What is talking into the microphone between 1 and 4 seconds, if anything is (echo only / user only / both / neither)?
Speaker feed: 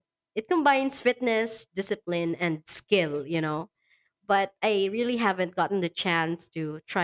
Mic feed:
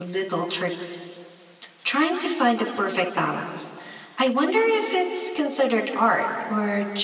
user only